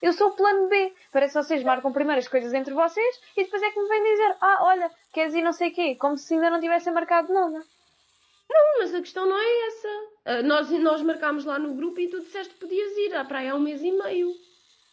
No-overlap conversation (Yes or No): Yes